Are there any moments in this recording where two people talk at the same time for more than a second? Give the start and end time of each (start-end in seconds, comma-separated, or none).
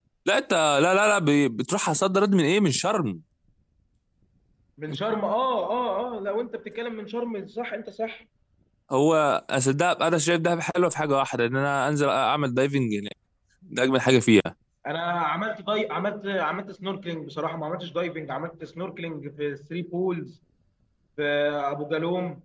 none